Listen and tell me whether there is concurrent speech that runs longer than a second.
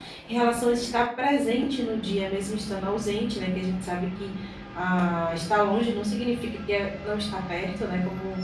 No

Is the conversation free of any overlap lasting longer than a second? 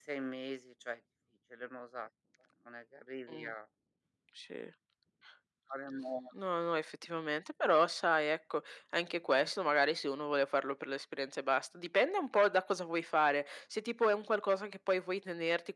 Yes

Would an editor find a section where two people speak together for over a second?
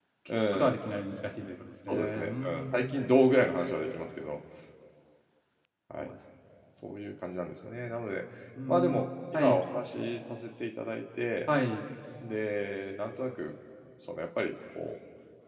Yes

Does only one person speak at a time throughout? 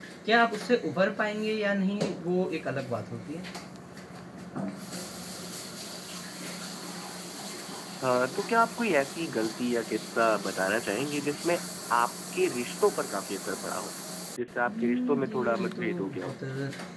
No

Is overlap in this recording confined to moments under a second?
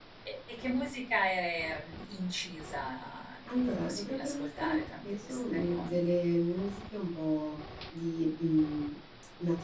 No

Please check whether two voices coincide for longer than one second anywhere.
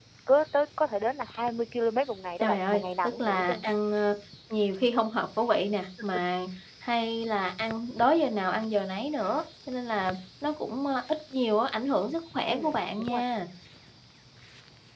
Yes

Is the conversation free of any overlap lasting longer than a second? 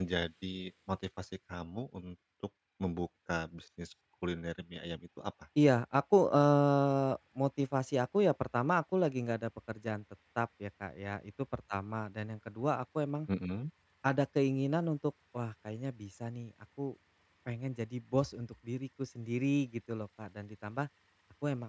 Yes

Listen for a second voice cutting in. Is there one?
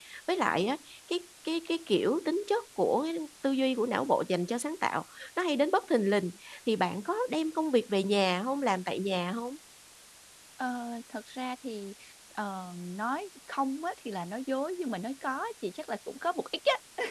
No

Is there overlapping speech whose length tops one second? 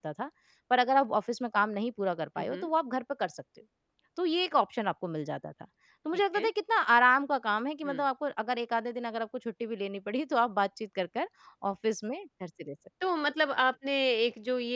No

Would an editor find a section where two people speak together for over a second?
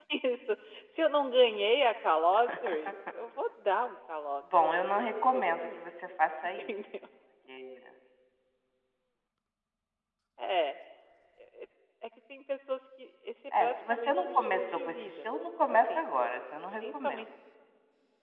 Yes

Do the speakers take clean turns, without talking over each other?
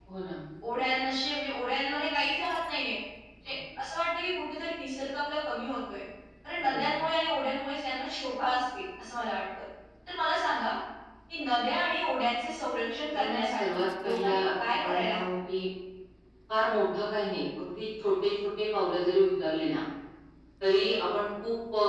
No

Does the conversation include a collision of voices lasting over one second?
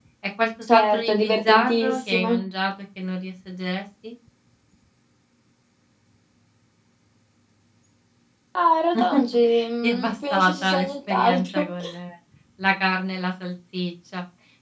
Yes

